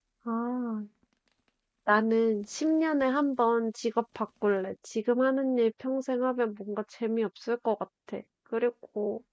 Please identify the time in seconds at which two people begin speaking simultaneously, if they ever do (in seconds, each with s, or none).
none